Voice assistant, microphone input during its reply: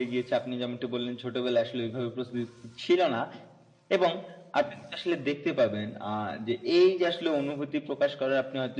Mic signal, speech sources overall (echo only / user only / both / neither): echo only